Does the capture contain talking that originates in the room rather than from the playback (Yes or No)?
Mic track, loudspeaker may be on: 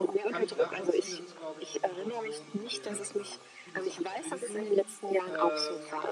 Yes